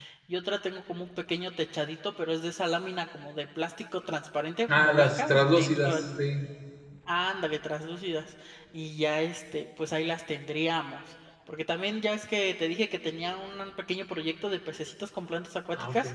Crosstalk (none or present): present